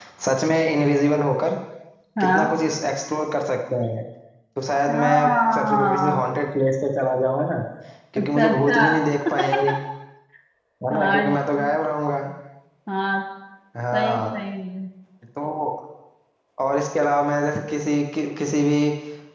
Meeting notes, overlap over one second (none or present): present